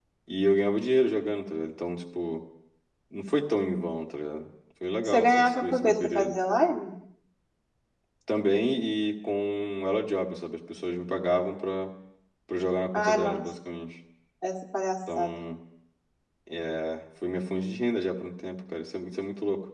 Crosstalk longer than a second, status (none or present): present